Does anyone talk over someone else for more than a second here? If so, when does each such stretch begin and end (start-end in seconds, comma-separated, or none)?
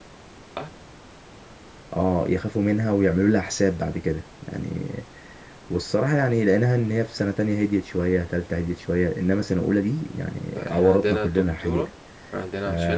10.5-11.9